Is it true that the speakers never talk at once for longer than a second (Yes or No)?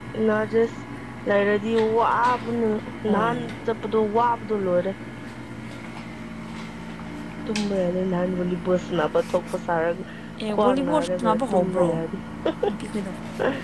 No